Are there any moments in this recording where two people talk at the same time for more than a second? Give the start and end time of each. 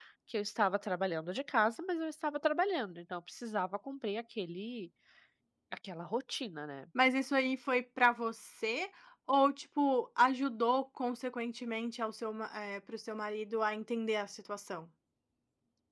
none

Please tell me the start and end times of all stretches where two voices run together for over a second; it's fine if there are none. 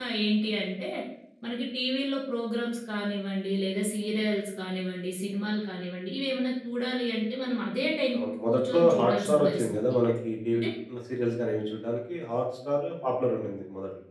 8.2-9.7

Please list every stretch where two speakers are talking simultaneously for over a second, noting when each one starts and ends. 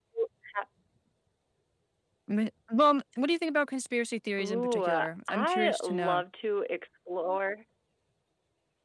4.4-6.2

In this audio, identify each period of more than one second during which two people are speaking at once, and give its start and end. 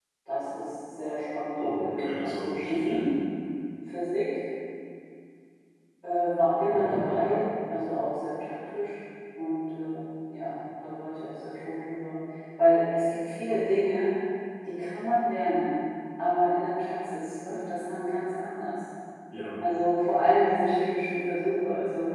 1.6-3.0

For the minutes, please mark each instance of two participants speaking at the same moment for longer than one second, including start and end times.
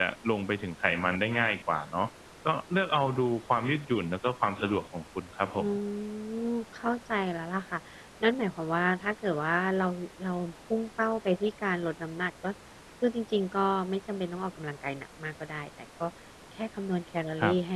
none

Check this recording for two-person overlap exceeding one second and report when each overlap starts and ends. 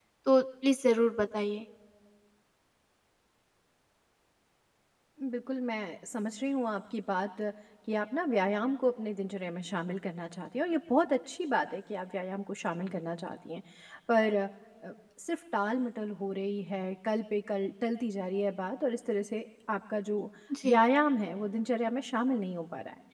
none

